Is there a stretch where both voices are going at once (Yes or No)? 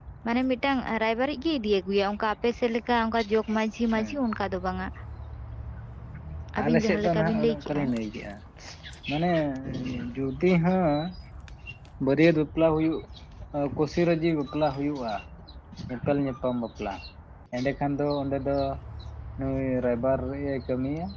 Yes